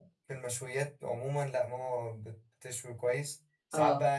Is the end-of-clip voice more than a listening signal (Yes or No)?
No